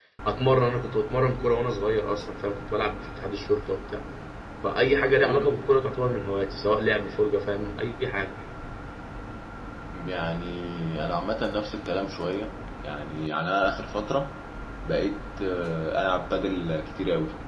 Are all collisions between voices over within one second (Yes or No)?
Yes